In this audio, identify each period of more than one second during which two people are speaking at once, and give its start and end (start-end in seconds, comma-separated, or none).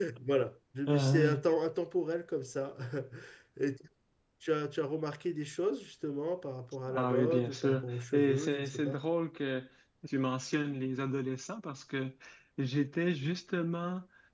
6.9-9.0